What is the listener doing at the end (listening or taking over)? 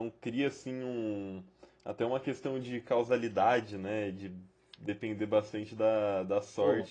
listening